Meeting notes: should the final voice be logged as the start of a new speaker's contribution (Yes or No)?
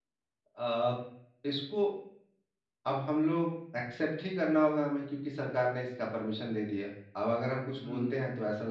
No